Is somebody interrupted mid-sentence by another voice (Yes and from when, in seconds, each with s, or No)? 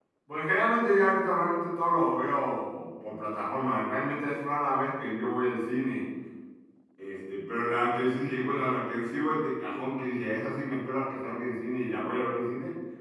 No